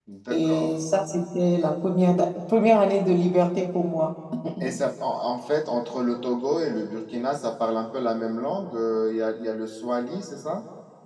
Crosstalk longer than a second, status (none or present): none